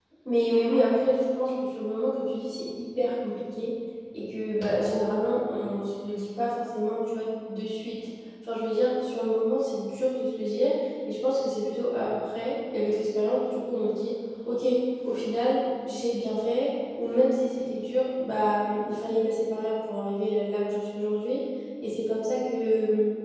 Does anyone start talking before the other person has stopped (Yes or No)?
No